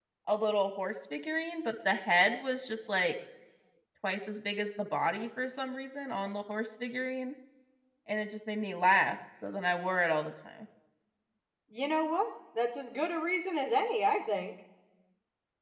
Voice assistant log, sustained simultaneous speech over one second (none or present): none